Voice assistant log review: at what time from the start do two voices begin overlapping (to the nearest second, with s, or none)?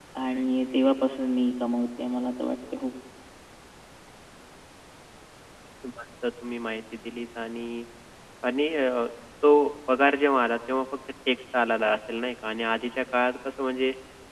none